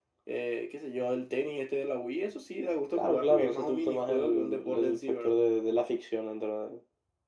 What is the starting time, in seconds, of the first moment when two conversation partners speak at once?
2.9 s

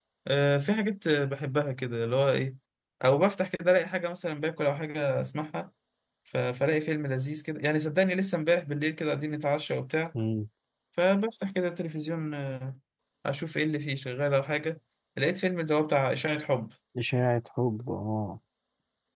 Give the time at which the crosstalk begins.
none

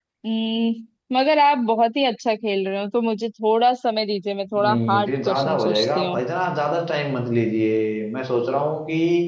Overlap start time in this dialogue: 4.5 s

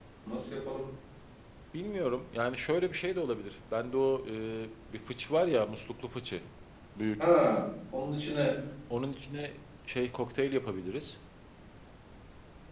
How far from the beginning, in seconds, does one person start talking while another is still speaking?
none

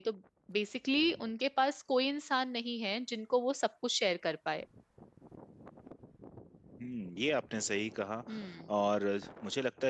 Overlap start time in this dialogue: none

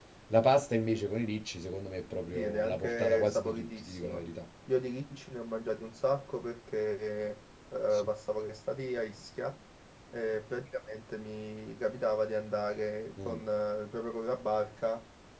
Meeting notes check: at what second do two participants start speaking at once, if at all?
2.3 s

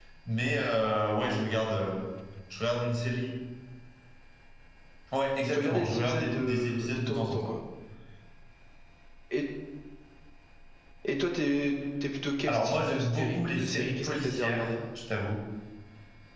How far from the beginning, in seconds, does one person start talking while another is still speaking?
5.5 s

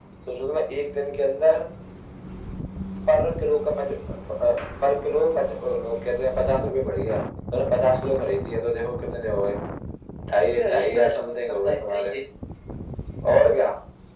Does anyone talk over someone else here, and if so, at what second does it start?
10.6 s

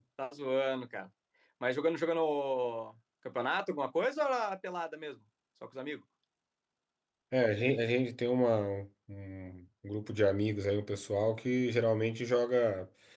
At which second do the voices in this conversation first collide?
none

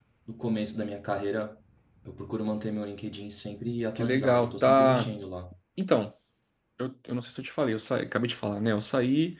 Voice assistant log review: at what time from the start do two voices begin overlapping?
4.0 s

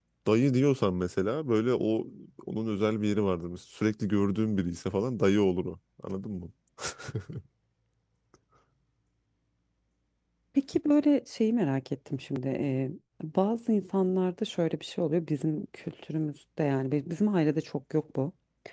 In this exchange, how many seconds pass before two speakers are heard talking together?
none

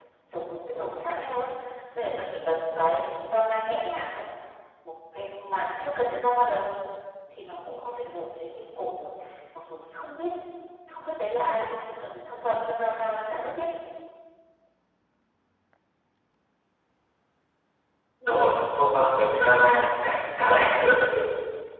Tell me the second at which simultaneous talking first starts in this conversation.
none

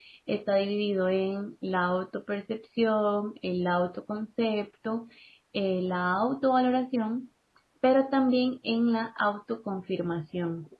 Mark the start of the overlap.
none

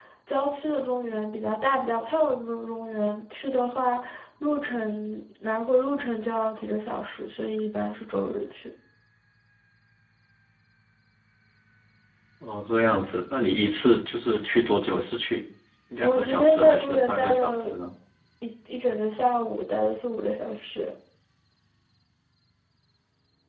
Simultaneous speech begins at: 16.0 s

